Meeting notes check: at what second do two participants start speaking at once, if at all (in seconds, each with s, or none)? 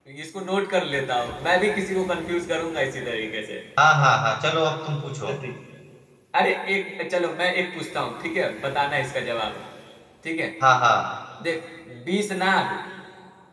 none